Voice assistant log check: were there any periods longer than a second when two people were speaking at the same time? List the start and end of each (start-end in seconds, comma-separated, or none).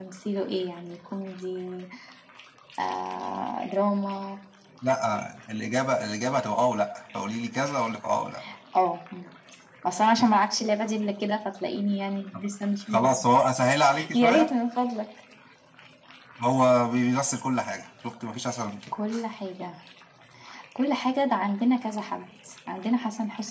none